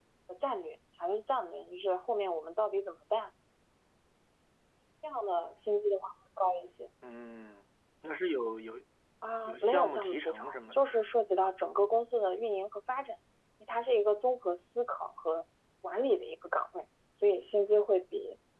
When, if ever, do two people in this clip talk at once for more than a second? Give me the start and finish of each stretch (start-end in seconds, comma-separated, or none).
9.4-10.9